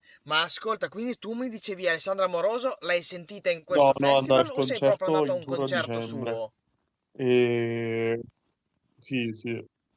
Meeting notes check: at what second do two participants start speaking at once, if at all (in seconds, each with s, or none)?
3.7 s